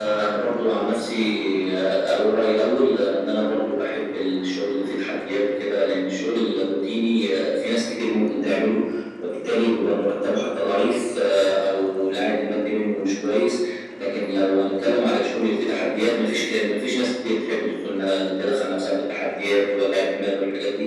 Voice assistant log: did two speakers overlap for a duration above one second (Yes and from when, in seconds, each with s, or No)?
No